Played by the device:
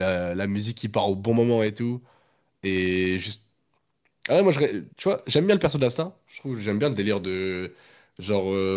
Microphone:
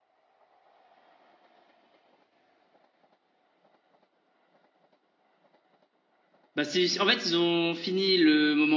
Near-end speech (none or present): present